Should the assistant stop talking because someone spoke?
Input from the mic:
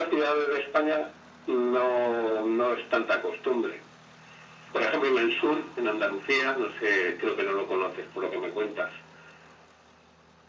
No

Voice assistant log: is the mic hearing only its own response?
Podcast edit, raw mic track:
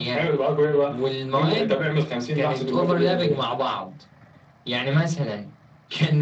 Yes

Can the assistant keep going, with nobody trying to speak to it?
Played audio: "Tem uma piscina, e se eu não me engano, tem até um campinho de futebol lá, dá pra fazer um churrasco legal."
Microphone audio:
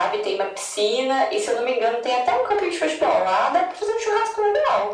Yes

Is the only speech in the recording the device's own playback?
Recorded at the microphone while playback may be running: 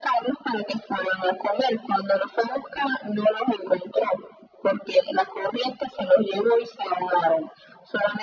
Yes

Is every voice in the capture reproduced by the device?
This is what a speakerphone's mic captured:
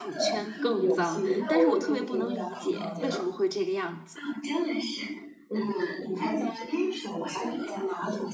No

